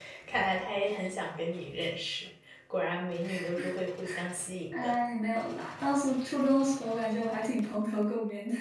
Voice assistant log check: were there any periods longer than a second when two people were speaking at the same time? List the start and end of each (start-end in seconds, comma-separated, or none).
none